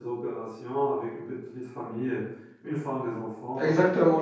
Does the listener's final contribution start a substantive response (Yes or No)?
Yes